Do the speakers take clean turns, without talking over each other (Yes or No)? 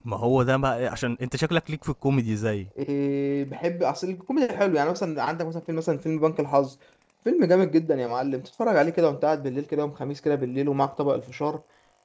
Yes